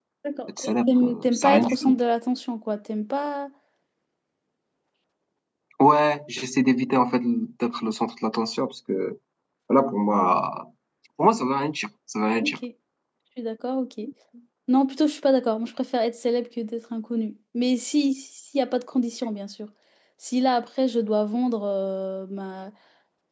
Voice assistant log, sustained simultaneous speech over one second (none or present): present